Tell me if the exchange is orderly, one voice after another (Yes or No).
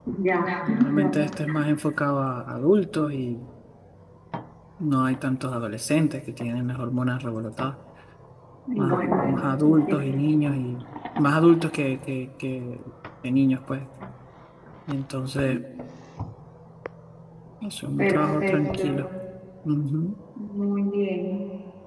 No